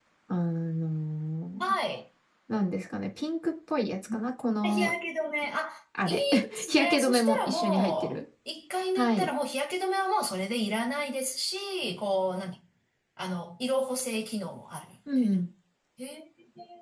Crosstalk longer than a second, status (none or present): present